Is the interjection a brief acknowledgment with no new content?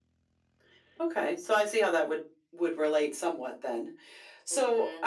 No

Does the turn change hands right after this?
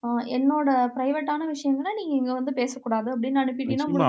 Yes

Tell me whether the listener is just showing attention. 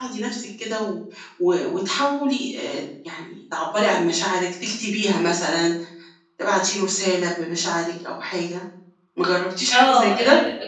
No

